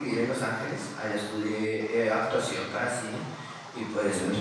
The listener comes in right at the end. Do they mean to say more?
No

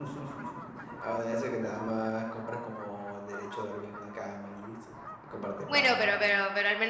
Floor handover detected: Yes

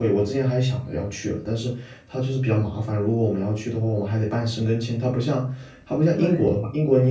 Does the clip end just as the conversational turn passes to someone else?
No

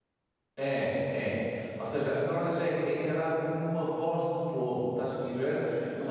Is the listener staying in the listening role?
Yes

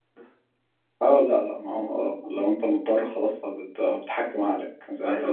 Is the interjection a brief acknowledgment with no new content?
No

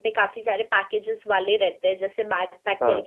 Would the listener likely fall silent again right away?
Yes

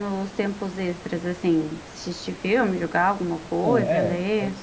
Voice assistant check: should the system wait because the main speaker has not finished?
No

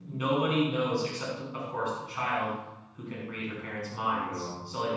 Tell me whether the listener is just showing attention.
Yes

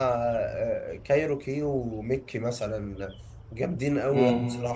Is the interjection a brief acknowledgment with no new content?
No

